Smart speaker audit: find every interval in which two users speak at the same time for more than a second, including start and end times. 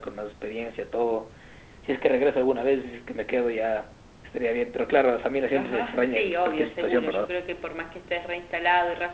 5.5-7.3

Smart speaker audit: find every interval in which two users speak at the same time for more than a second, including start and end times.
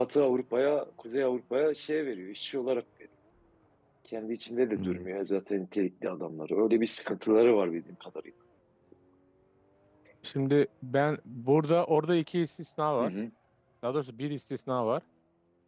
none

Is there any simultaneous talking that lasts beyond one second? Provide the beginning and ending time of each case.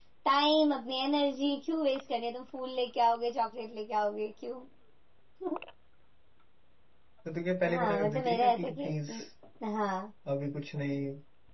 7.7-9.1

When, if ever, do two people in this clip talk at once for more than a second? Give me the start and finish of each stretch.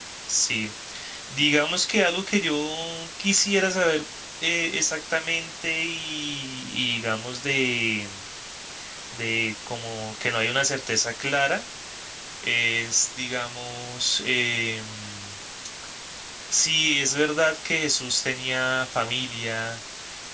none

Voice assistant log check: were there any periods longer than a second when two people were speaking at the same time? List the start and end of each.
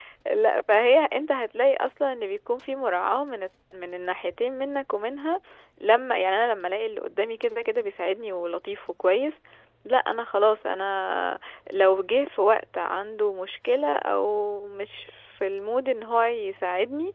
none

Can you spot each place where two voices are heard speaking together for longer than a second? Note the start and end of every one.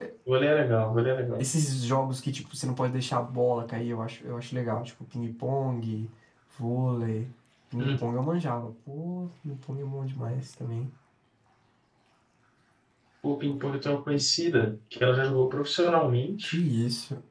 none

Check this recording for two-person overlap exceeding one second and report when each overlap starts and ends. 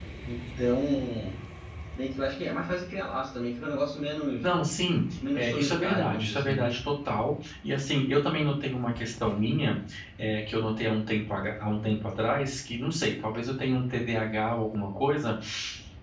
5.3-6.7

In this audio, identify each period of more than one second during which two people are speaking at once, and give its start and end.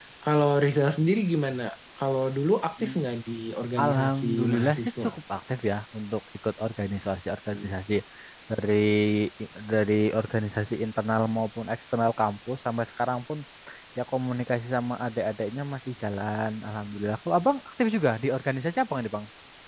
3.8-5.1

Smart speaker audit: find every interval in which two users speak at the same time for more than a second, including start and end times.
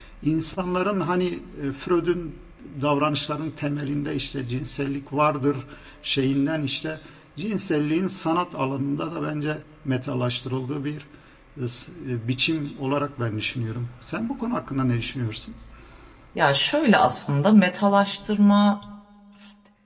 none

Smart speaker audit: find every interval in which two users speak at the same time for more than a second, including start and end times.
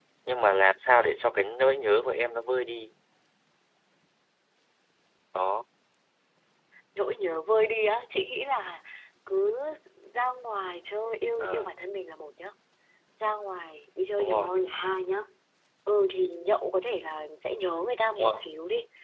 none

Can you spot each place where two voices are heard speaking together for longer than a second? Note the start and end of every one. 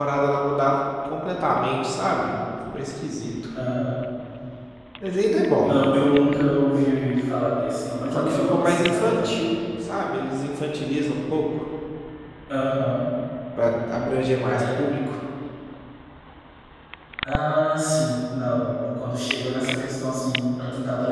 8.1-9.5

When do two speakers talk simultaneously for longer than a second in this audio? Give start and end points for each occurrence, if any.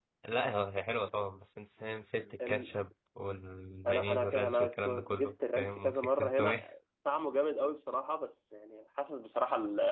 3.9-6.6

